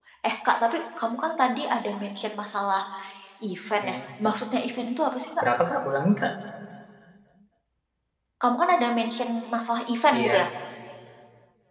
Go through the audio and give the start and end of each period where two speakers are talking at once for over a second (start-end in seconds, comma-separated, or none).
none